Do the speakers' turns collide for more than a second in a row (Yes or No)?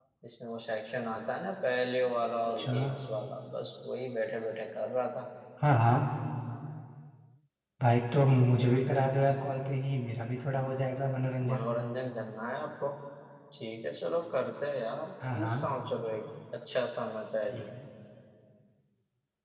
No